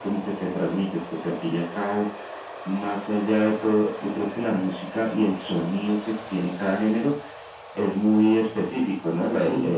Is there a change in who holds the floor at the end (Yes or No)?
No